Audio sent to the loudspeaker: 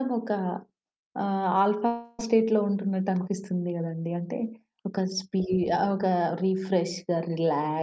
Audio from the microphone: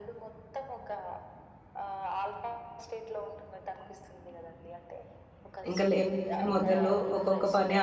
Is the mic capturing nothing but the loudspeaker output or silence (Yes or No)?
No